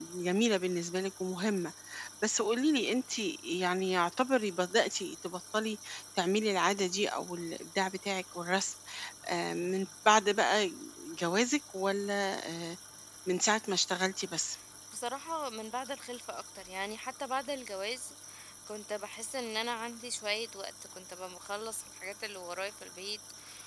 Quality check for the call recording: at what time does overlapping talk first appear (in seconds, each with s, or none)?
none